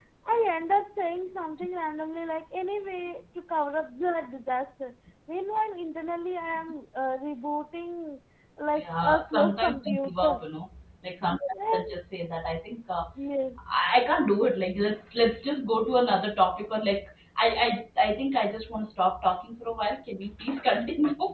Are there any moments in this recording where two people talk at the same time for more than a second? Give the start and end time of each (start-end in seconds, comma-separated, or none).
8.8-10.4